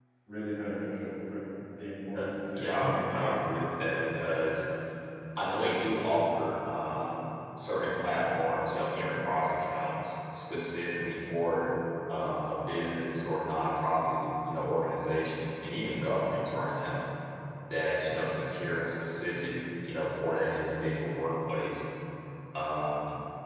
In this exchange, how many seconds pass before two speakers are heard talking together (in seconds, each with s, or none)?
2.1 s